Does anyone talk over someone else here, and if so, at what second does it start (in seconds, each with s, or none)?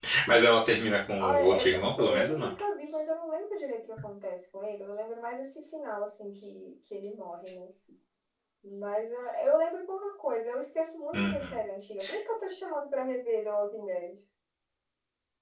1.2 s